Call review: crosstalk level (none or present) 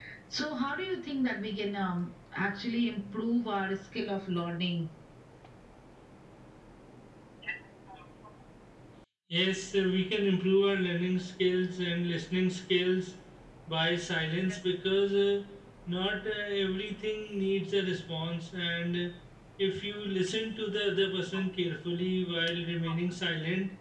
none